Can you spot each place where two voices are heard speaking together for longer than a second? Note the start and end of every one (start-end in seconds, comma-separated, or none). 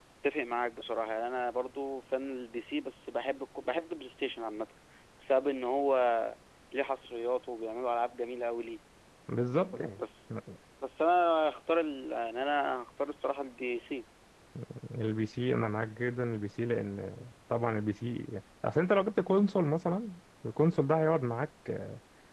none